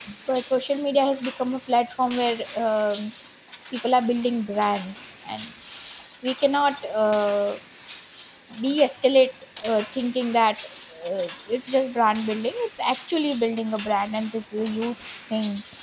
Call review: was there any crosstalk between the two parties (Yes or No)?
No